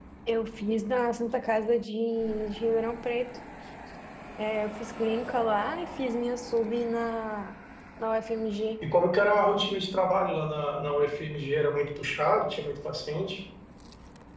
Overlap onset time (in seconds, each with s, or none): none